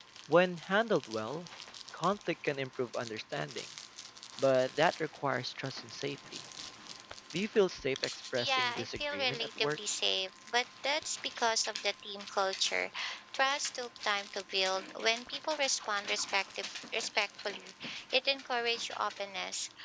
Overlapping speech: Yes, from 8.4 s

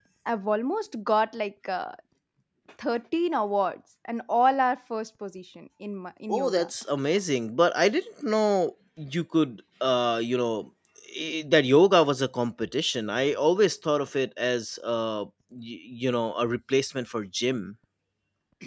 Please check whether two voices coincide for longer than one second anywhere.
No

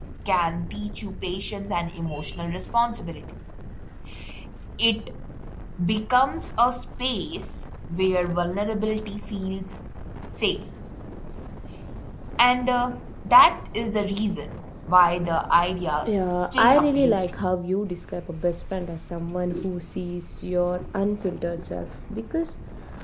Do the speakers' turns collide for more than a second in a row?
Yes, from 16.0 s

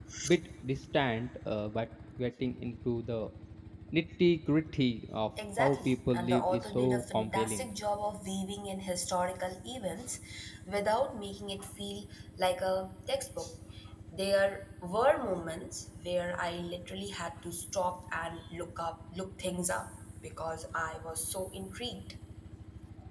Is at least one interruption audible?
Yes, from 5.4 s

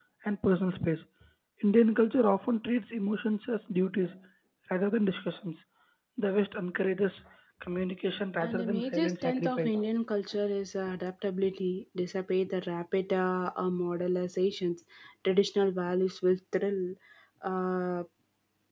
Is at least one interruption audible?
Yes, from 8.4 s

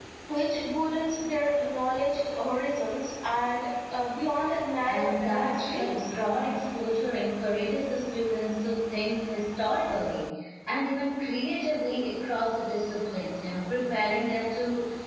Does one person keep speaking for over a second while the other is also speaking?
Yes, from 4.8 s

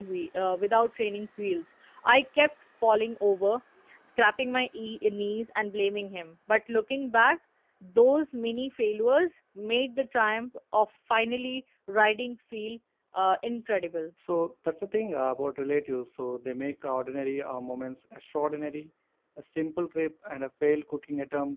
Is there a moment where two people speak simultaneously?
No

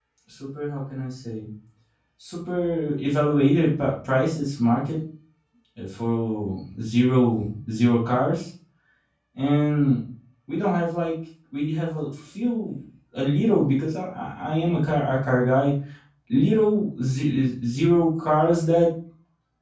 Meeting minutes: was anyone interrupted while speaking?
No

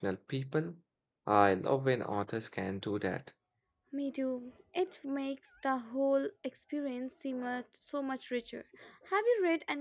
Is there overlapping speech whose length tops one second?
No

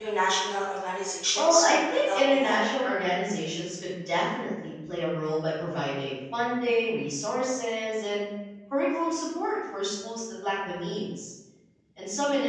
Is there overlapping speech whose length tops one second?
Yes, from 1.4 s

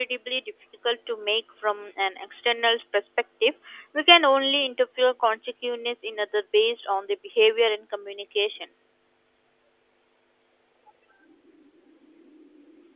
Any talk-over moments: No

